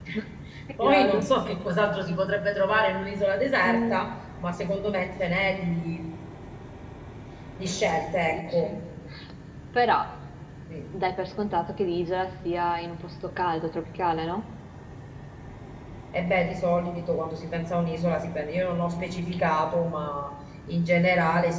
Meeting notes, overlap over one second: none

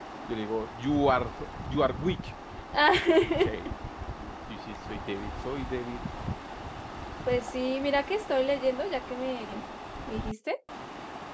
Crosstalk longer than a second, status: none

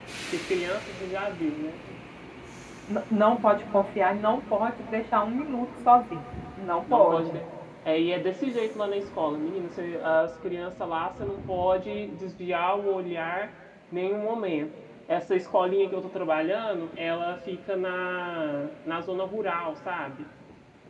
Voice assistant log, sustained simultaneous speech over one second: none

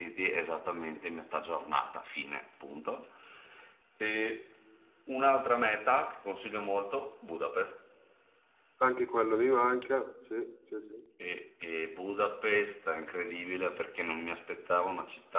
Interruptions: none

